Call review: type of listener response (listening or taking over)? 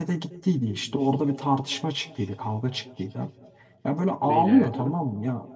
listening